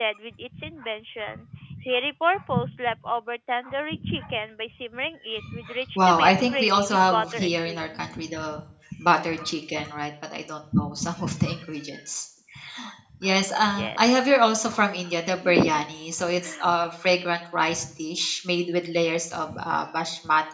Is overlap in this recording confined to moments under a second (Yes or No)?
No